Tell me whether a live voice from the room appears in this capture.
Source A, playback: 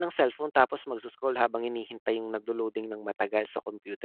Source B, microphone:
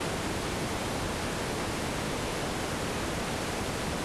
No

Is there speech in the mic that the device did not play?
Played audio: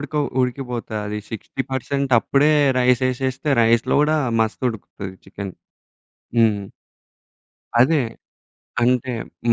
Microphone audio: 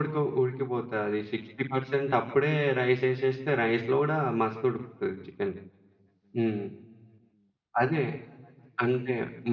No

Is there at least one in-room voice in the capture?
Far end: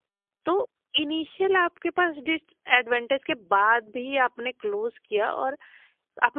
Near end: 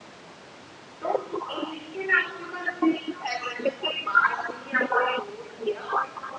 No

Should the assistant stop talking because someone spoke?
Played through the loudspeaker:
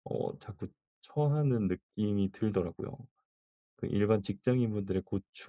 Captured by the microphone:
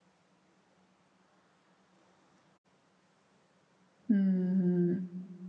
Yes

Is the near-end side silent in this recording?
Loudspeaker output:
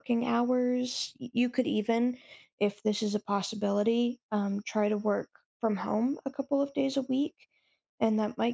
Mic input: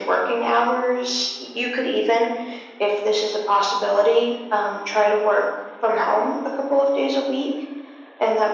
Yes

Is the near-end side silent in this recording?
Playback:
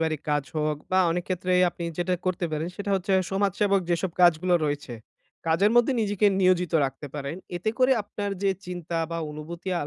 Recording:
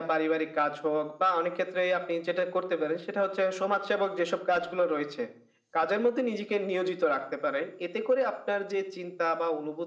Yes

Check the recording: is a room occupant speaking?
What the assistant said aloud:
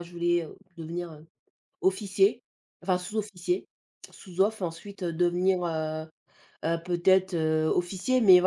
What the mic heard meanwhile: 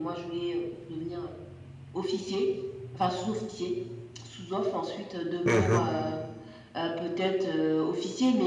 Yes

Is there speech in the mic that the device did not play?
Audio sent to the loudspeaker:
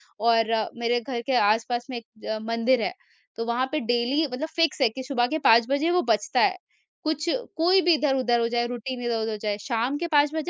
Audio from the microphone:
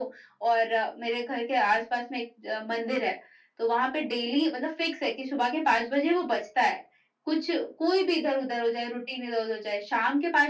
No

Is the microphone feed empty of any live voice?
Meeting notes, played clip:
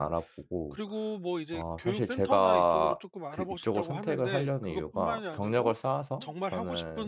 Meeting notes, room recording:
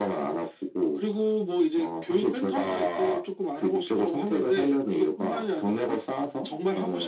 Yes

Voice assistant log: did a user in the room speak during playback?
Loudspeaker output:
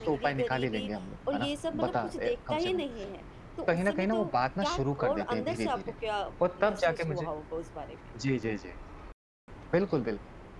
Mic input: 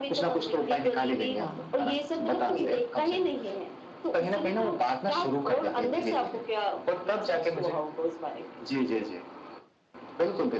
Yes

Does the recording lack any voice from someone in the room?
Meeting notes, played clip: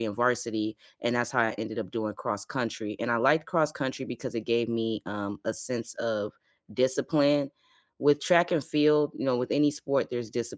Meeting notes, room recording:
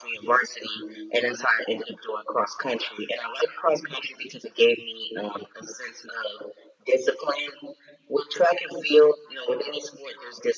Yes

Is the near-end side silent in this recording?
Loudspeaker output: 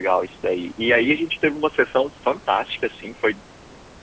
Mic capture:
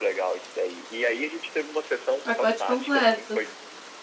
No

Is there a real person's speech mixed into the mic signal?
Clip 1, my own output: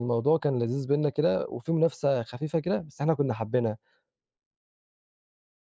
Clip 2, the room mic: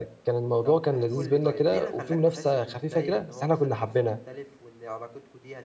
Yes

